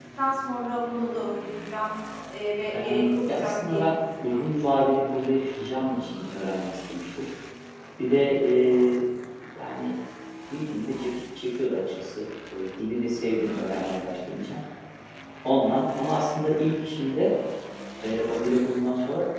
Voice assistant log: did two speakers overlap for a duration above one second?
Yes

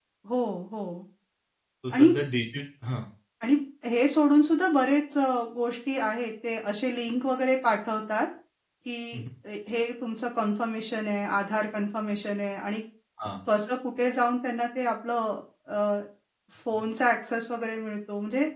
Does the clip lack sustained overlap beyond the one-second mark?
Yes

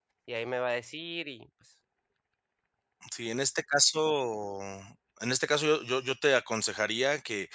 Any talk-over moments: No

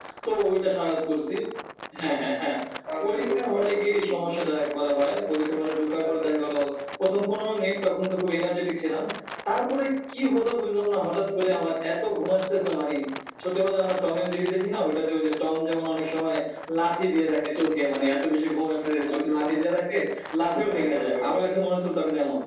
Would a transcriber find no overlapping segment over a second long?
No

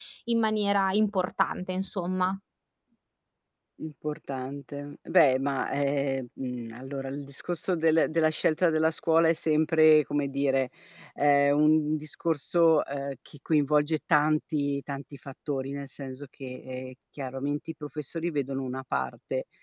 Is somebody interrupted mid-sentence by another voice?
No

